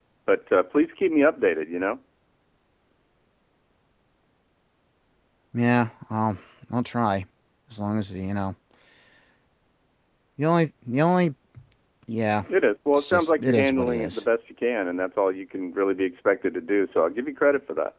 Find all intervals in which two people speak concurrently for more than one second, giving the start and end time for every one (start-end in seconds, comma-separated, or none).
12.9-14.2